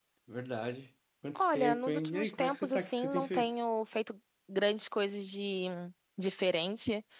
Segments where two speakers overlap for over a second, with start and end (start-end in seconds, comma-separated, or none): 1.4-3.5